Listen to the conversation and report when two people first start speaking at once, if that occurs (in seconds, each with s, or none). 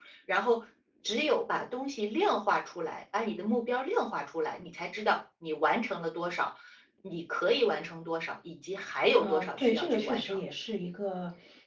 9.2 s